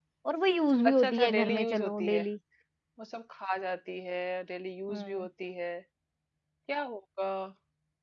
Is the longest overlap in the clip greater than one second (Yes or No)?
Yes